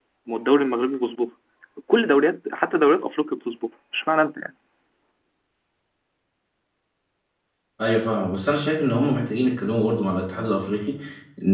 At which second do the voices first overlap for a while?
none

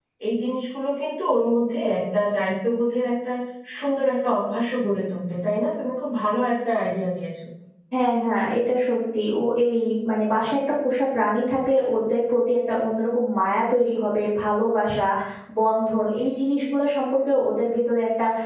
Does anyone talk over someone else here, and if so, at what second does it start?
none

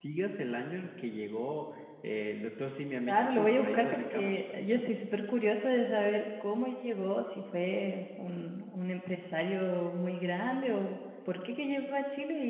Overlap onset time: 3.1 s

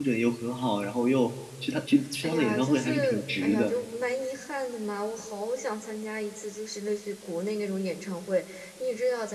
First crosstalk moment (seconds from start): 2.2 s

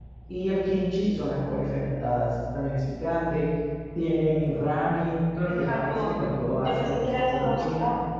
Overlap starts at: 5.5 s

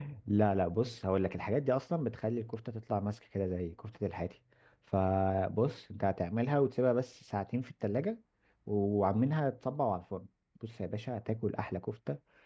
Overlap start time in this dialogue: none

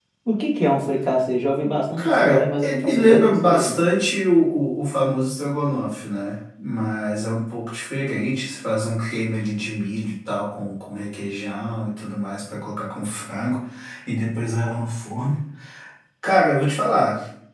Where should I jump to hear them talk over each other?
2.0 s

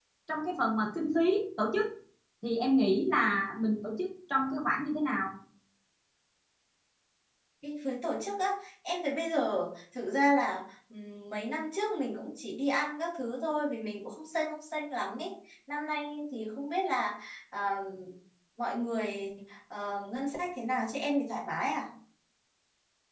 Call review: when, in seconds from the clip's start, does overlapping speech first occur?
none

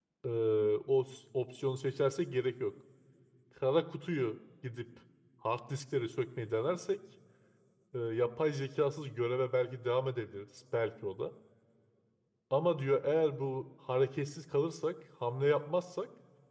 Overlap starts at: none

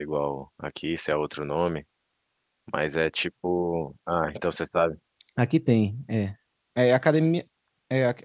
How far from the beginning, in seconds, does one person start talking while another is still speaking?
none

